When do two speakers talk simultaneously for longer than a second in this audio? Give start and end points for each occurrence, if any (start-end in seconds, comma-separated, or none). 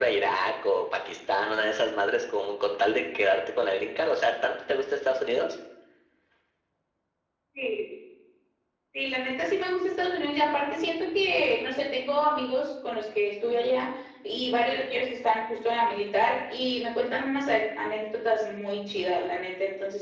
none